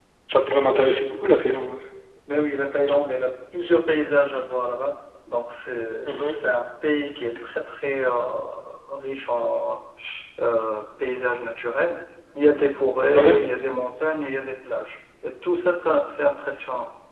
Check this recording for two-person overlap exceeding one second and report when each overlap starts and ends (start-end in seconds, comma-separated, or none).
none